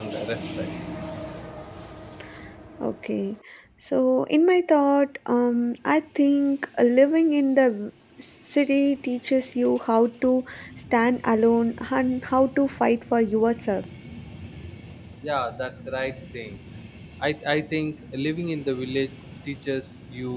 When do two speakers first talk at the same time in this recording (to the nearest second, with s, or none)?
none